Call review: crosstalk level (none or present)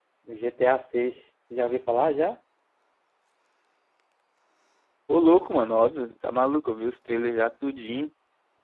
none